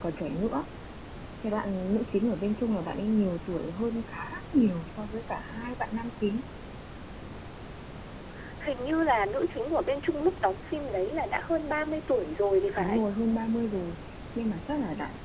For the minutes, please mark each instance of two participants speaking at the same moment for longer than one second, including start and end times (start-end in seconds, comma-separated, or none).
none